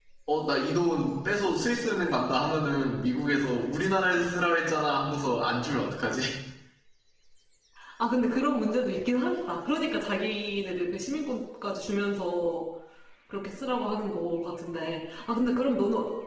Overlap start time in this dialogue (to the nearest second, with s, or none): none